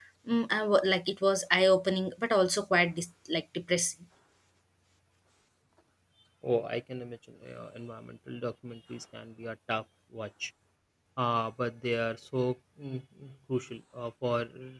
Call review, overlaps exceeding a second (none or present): none